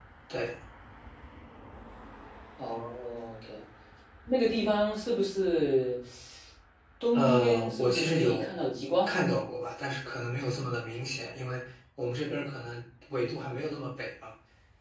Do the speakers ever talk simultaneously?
Yes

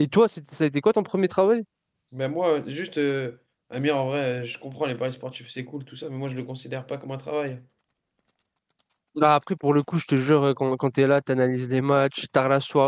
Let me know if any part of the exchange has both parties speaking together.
No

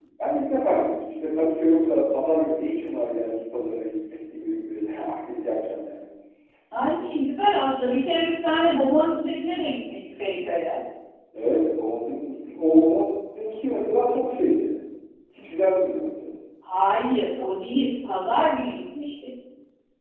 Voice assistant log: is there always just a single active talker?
Yes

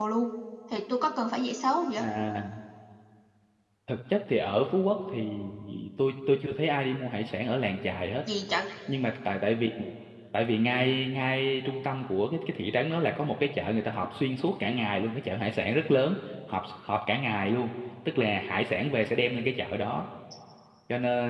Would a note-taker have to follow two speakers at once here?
No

